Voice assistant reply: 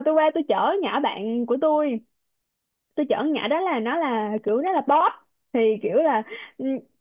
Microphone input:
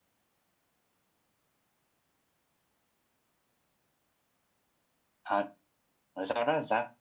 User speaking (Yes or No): Yes